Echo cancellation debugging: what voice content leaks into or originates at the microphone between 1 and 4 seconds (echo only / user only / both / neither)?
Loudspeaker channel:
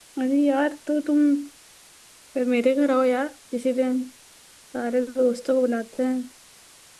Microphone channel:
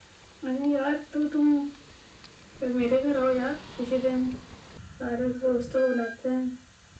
echo only